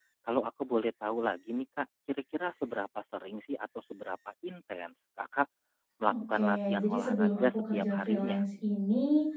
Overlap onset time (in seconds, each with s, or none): 6.1 s